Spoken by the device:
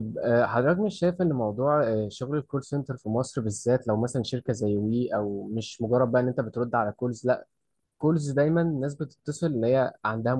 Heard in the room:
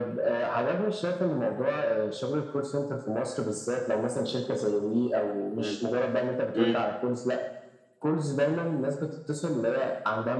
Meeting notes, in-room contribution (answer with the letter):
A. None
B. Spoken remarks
B